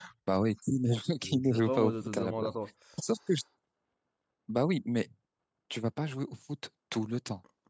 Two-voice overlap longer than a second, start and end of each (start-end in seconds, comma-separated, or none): 1.2-2.5